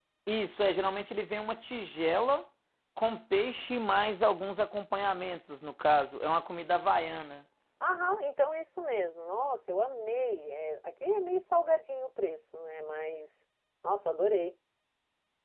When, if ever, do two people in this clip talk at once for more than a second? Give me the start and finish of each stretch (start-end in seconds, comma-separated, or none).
none